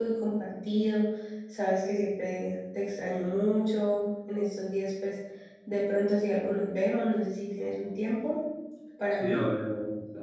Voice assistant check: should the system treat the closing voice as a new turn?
Yes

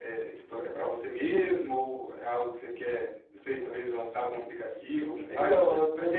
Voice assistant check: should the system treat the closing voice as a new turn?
Yes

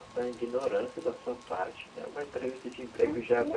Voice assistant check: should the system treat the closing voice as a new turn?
No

